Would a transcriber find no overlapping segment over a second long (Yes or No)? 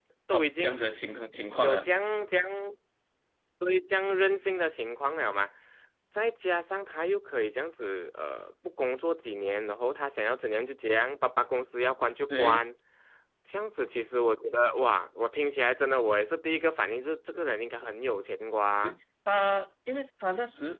Yes